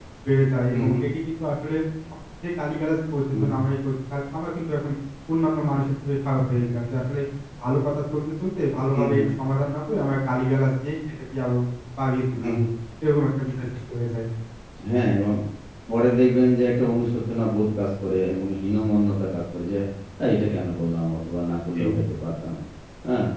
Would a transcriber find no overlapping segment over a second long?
Yes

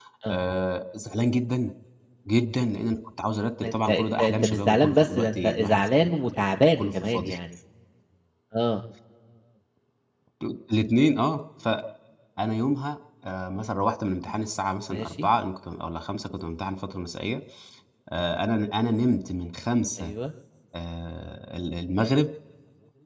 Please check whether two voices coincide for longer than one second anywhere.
Yes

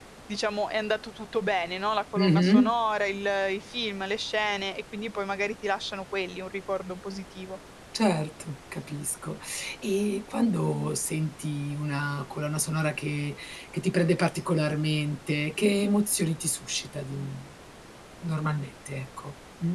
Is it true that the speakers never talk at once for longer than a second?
Yes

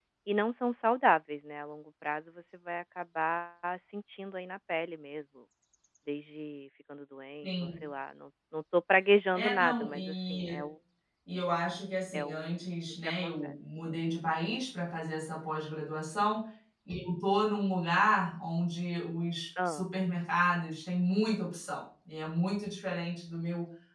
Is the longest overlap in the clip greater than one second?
Yes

